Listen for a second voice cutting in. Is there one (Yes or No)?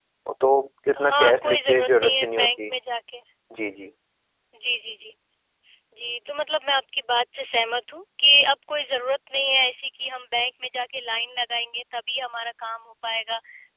Yes